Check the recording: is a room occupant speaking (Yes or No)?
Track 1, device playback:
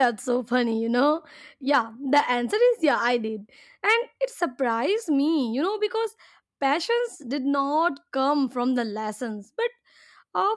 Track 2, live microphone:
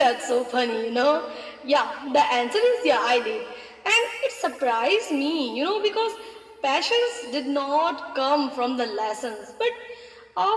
No